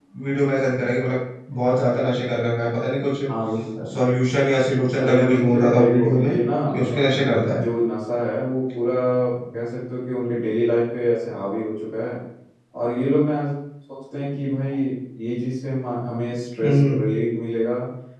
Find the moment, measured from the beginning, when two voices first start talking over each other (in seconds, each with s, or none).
5.0 s